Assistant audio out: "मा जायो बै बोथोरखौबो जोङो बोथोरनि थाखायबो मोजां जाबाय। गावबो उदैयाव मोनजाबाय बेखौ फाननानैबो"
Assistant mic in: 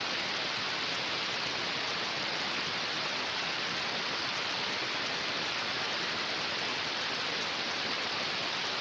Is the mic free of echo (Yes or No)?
Yes